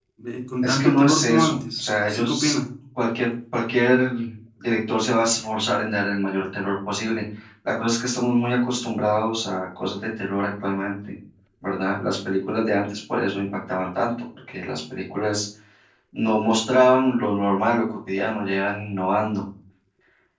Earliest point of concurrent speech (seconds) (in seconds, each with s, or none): 0.6 s